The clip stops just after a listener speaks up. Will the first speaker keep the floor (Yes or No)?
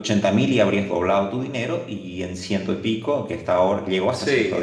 Yes